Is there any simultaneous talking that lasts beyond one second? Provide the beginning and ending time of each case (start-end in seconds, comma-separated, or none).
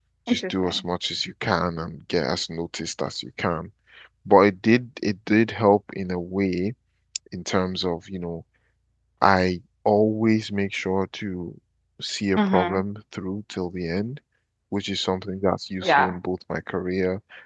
none